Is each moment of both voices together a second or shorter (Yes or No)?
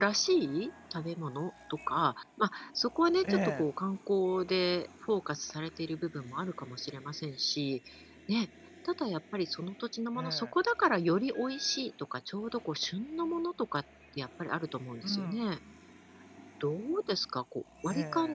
Yes